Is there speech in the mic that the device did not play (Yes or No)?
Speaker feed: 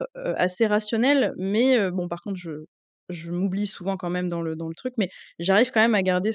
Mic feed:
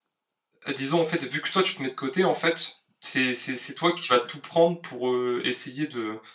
Yes